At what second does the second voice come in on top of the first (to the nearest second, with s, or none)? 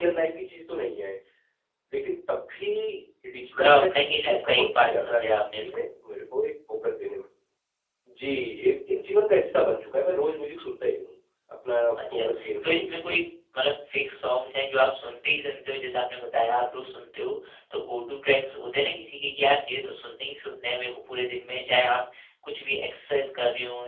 4 s